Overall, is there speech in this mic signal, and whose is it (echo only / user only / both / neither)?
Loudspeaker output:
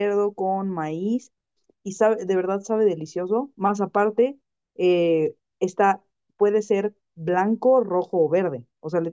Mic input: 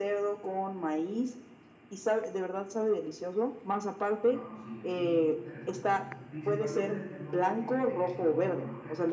both